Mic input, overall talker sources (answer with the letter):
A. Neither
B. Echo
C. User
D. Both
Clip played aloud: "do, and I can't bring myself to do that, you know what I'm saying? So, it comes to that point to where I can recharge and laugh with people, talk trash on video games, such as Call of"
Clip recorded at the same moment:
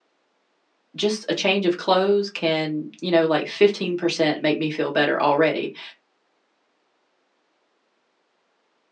C